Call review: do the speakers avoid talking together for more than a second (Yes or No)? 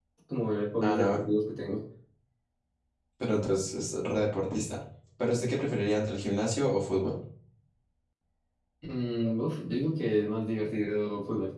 Yes